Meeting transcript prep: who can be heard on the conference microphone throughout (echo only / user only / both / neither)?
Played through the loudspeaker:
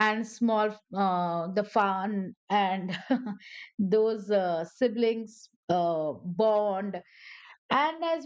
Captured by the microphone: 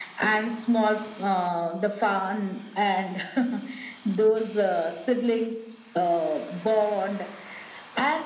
echo only